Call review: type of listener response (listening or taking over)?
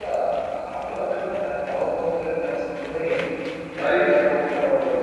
listening